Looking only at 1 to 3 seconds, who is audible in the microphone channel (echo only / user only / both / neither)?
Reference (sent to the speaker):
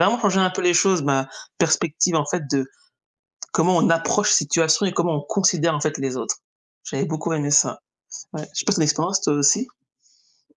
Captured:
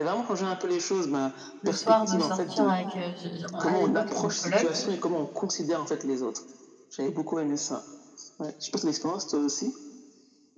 both